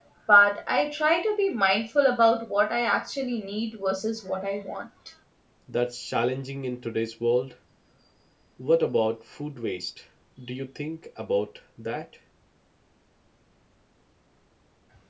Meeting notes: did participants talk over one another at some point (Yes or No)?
No